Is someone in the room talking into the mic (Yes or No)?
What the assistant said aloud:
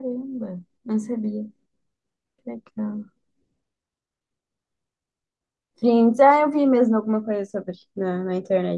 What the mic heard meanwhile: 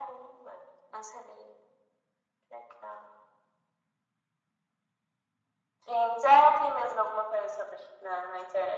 No